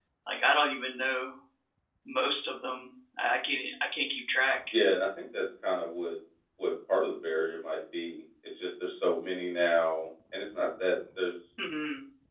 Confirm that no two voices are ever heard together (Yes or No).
Yes